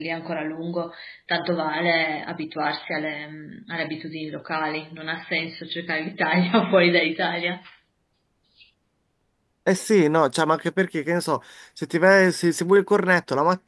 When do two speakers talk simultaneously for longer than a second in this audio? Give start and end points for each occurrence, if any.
none

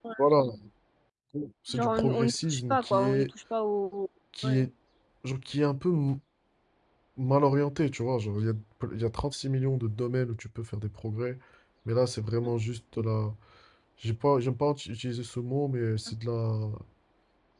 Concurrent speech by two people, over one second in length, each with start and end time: 1.7-3.3

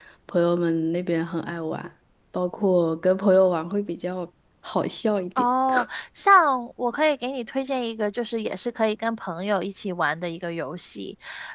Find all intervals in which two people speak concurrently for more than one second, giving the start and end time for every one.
none

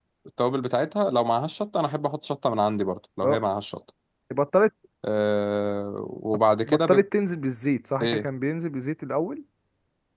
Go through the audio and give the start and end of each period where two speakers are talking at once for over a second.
none

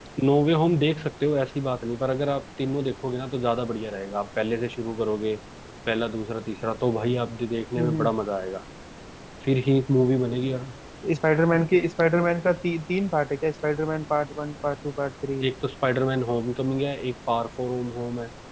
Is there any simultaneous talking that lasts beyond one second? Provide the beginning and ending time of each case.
none

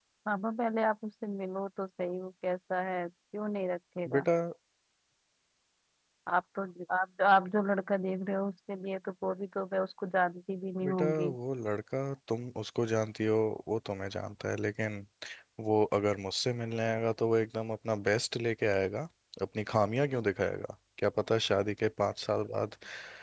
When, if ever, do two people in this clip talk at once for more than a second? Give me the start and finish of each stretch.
none

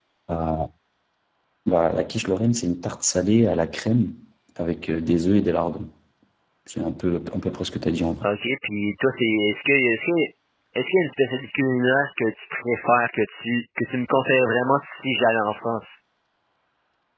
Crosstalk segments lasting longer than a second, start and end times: none

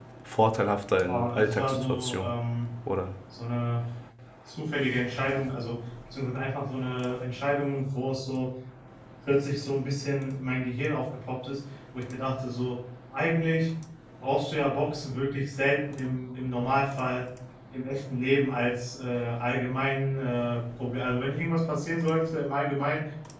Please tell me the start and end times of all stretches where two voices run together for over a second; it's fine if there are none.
1.0-2.3

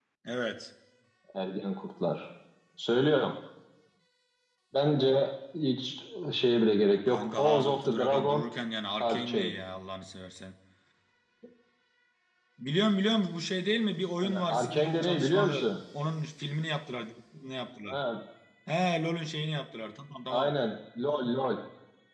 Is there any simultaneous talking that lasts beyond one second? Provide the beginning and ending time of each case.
7.0-8.4, 14.2-15.7

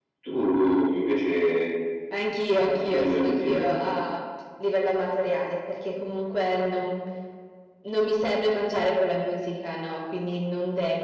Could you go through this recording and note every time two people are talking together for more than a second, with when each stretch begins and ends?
2.5-3.9

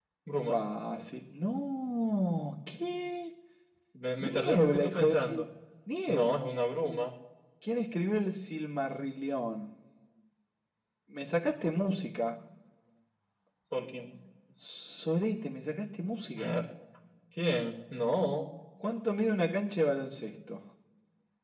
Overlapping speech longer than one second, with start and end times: 4.2-5.4

